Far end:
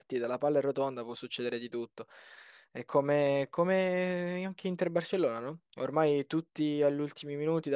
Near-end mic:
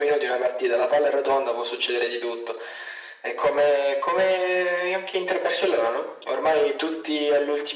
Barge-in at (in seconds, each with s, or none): none